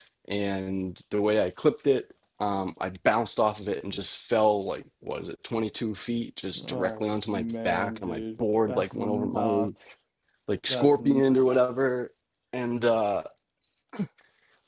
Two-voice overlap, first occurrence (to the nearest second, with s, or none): 7 s